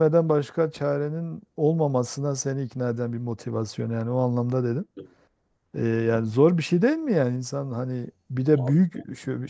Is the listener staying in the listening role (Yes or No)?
Yes